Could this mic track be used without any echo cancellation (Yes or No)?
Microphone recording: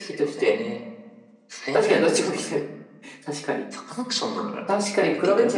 No